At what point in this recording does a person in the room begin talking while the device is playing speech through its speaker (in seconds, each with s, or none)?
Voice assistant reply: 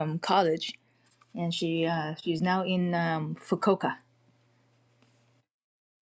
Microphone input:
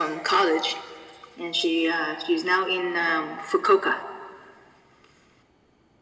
none